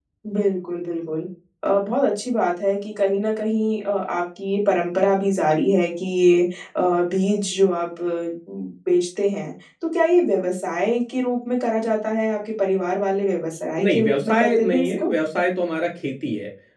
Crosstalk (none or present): present